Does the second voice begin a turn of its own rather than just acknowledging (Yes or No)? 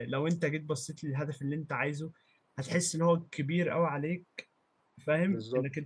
No